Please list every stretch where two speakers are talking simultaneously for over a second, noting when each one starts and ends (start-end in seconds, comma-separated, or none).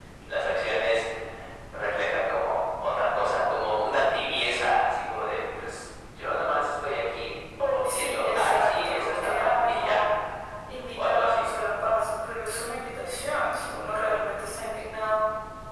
7.8-10.0